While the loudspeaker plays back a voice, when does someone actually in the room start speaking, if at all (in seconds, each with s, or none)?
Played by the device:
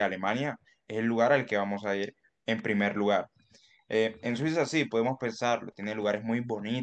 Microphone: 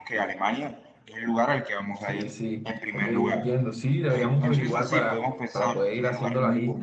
1.9 s